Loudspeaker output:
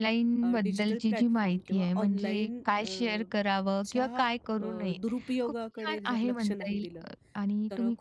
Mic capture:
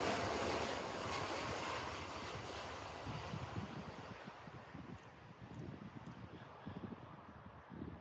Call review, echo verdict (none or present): none